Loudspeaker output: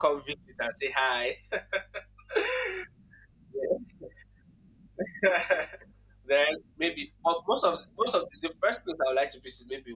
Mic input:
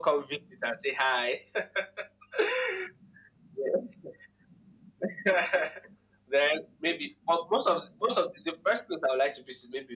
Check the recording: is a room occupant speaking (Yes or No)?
No